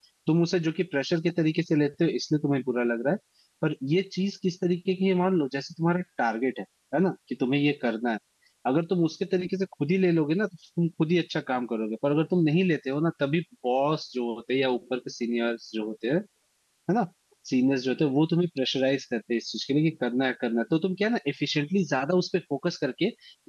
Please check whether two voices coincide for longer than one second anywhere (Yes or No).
No